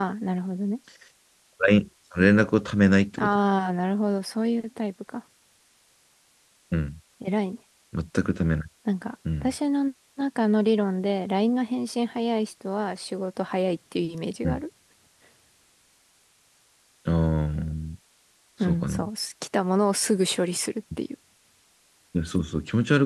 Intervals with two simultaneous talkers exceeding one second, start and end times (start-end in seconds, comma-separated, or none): none